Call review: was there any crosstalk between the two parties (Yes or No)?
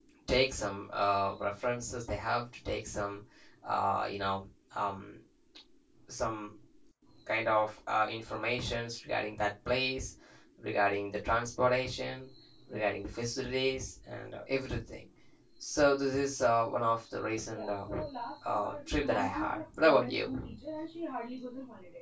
Yes